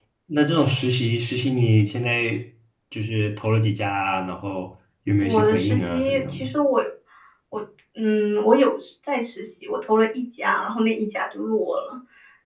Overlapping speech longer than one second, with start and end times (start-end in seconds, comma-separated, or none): 5.2-6.5